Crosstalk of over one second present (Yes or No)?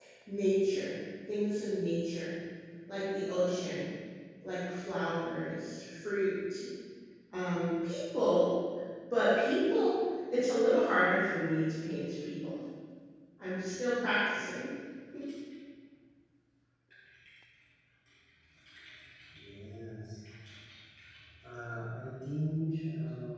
No